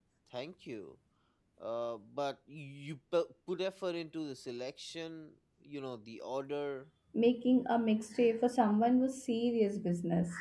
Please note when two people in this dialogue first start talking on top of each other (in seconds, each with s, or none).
none